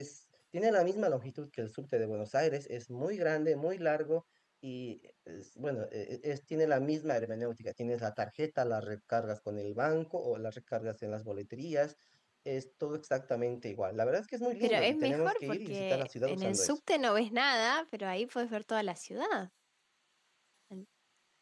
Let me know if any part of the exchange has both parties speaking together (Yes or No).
Yes